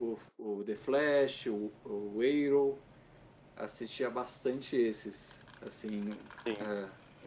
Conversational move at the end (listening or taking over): listening